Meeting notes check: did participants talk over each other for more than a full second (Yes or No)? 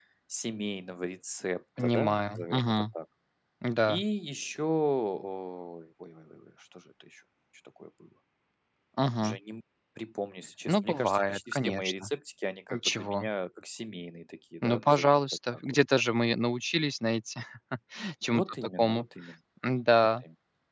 Yes